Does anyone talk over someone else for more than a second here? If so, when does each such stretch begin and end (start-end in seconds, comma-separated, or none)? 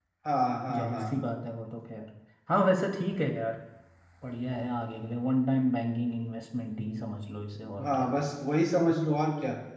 none